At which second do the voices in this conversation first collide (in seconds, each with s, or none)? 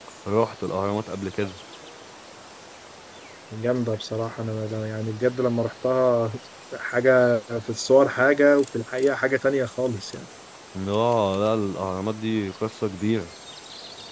none